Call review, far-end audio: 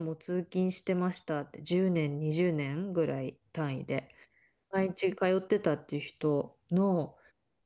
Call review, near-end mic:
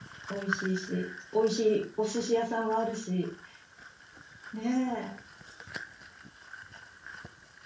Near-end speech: present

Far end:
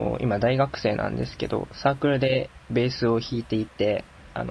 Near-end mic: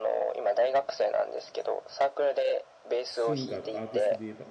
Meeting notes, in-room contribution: present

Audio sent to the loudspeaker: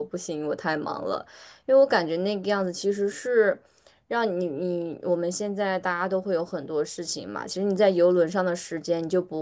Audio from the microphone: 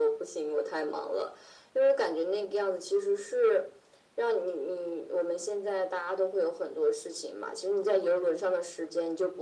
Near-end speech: none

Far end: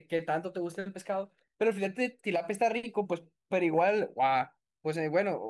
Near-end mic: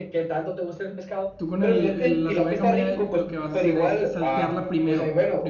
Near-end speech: present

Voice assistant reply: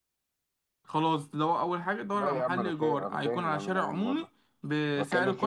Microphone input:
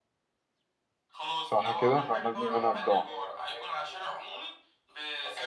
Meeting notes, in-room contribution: present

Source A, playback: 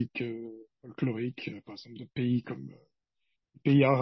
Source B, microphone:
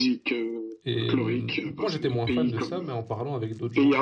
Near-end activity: present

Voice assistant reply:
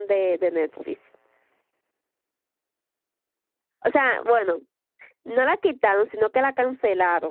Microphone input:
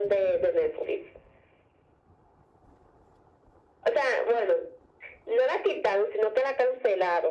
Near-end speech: none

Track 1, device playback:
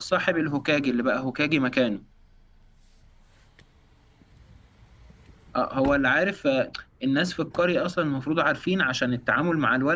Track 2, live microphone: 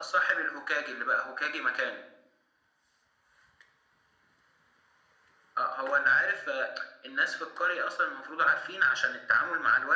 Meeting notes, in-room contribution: none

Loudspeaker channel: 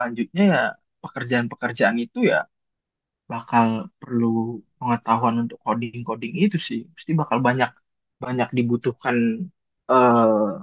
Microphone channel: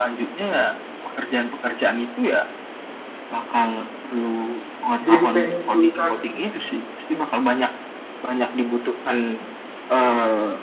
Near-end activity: present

